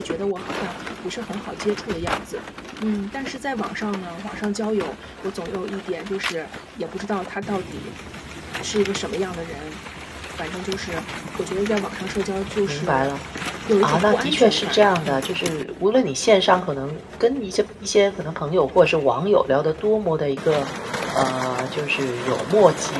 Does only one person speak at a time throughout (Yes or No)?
No